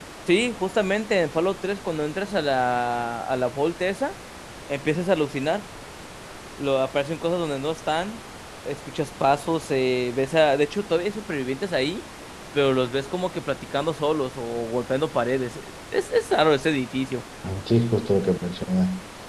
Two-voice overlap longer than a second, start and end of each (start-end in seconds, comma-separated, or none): none